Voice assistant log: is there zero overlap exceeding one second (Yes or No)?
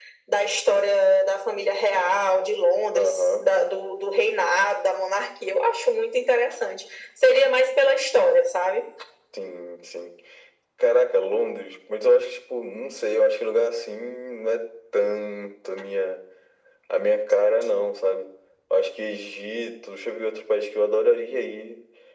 Yes